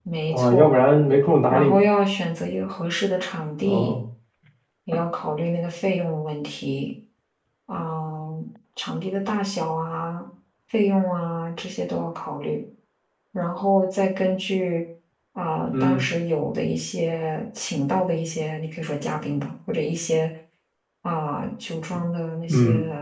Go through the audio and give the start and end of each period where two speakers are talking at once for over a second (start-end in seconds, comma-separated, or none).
none